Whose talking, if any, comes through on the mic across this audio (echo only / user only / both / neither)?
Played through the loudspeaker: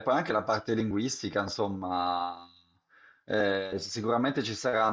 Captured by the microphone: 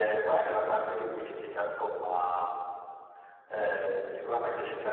echo only